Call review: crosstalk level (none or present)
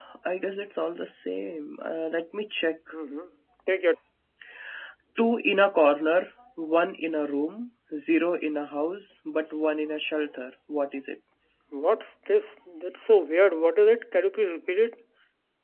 none